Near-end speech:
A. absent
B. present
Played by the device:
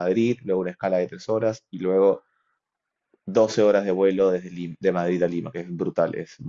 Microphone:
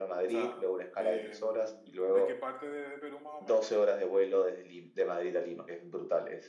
B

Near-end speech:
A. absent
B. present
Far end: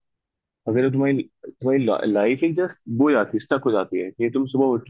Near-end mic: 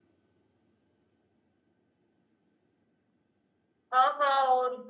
B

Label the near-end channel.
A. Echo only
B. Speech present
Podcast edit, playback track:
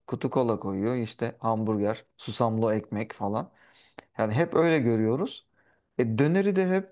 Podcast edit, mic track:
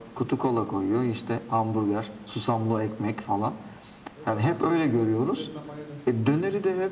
B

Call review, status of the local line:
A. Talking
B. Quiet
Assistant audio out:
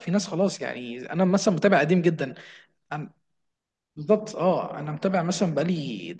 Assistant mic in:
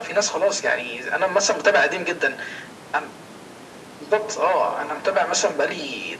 B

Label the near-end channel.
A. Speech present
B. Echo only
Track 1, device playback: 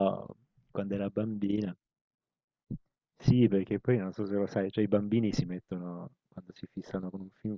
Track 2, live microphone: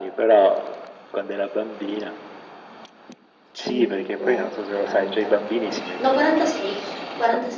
A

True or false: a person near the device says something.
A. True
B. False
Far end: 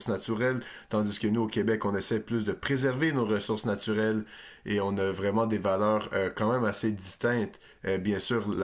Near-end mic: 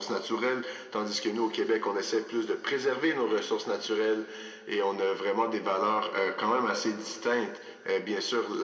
B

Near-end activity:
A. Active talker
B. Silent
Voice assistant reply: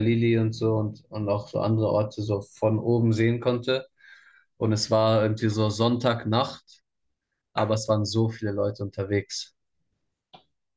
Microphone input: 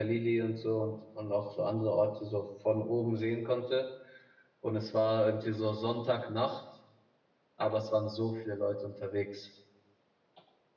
B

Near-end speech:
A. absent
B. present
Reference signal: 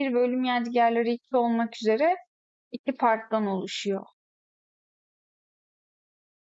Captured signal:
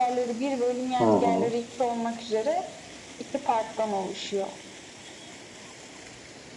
B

